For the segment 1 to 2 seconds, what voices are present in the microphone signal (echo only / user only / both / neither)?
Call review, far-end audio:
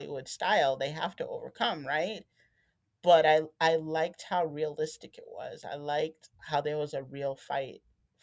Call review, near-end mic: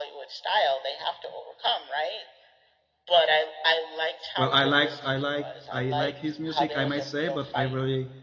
echo only